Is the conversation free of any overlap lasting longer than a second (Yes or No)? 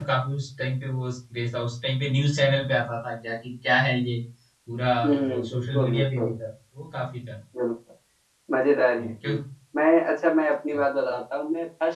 No